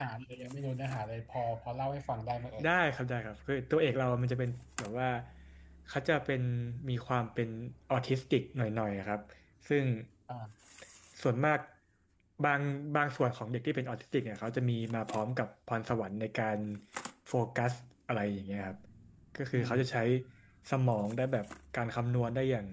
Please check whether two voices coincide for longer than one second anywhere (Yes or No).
No